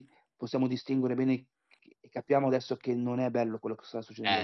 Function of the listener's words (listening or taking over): taking over